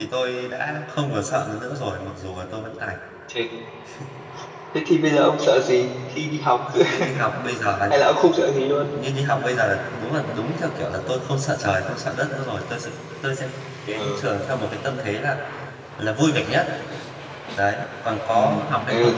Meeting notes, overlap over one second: none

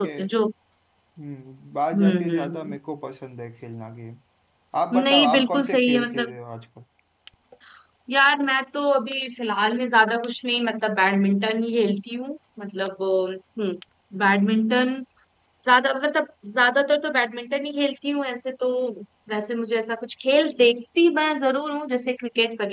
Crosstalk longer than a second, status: present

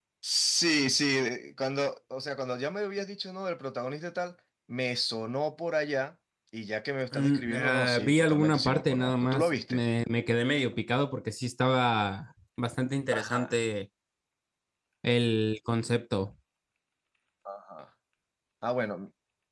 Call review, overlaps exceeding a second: present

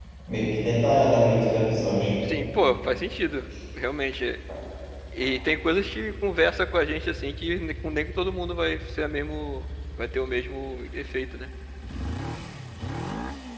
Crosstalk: none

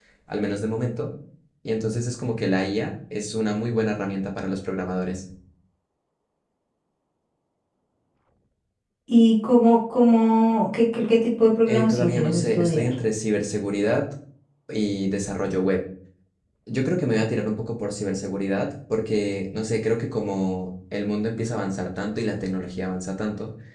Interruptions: present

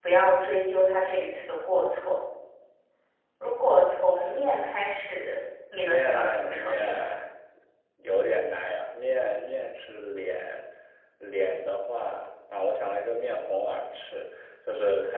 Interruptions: present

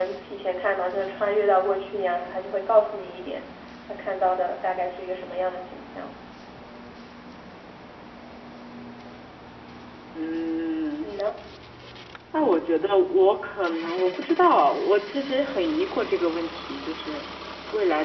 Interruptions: none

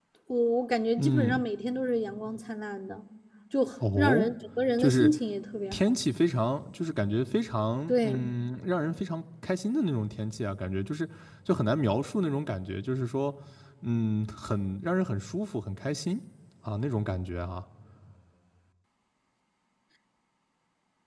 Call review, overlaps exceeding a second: none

